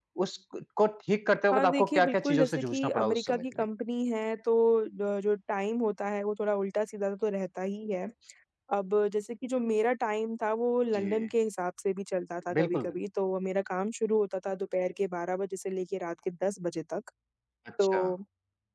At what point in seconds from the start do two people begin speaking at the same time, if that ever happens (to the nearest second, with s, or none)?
2 s